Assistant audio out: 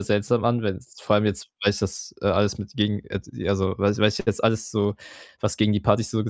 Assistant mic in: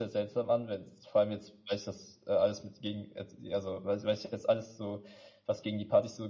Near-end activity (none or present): none